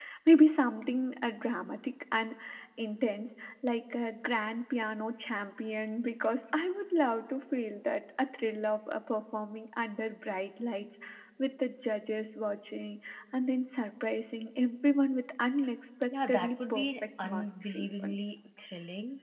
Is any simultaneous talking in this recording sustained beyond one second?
Yes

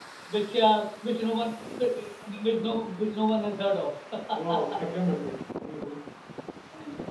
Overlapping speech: No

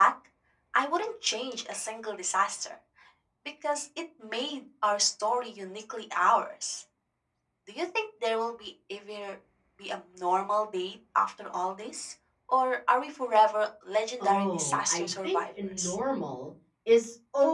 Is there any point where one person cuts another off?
Yes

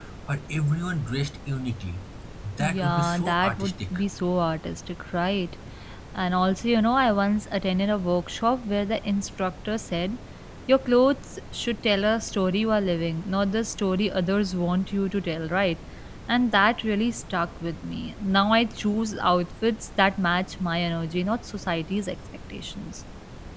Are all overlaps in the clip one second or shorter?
No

